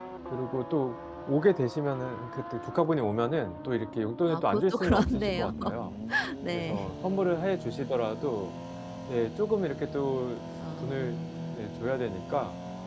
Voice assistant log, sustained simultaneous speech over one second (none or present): present